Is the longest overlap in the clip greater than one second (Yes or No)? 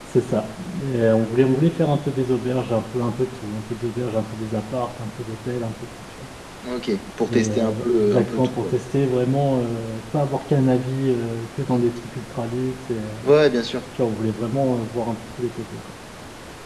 Yes